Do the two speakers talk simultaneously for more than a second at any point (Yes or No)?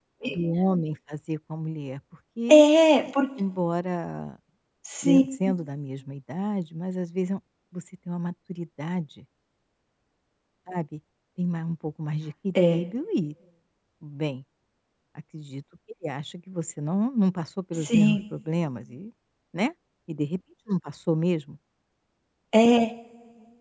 No